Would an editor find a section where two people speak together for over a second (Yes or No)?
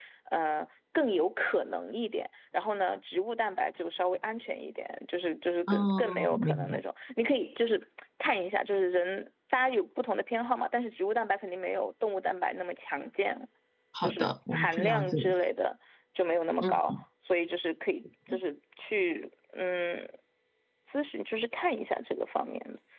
Yes